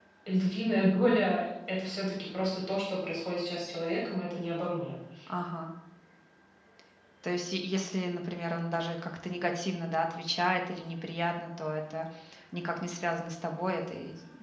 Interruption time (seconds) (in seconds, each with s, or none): none